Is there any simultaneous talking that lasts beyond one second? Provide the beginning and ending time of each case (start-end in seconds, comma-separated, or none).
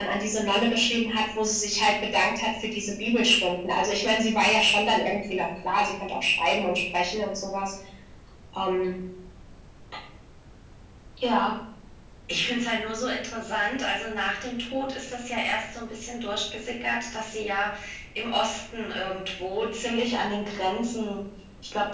none